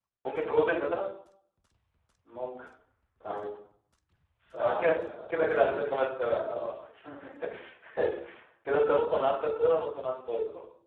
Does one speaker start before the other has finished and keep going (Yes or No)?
Yes